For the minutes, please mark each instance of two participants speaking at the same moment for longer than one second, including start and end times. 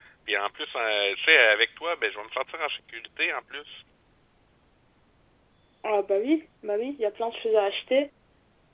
none

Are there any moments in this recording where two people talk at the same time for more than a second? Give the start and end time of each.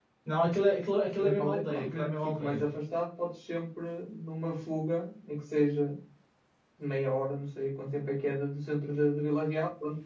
1.2-2.7

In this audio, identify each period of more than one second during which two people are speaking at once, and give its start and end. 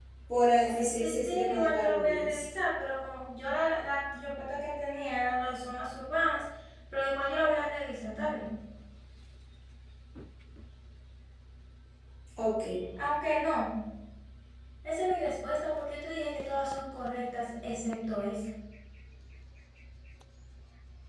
0.6-2.4

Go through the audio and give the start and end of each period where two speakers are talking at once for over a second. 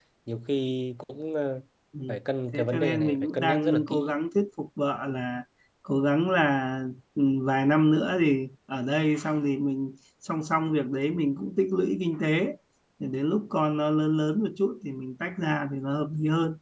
2.5-4.2

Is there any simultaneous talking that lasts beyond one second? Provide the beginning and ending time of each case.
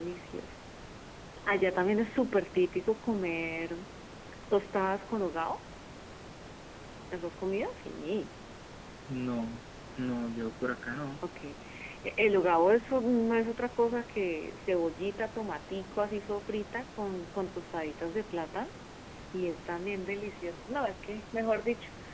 none

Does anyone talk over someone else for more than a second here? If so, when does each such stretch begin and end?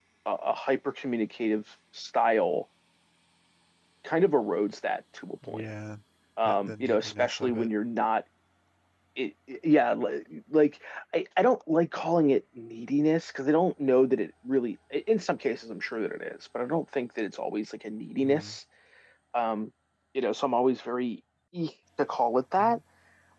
6.4-7.7

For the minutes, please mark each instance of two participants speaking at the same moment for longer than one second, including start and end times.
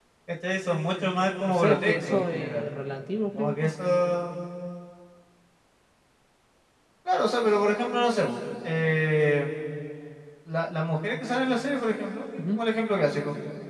1.5-2.7

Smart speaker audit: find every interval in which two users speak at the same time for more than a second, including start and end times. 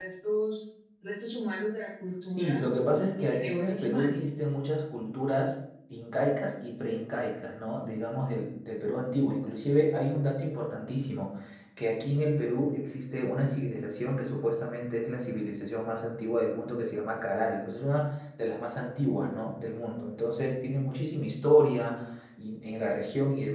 3.3-4.5

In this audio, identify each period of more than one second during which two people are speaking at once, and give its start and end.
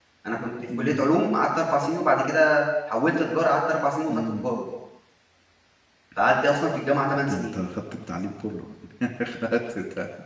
none

